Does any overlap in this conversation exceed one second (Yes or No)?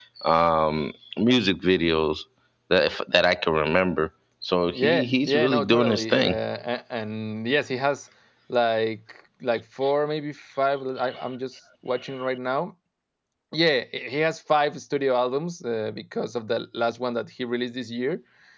Yes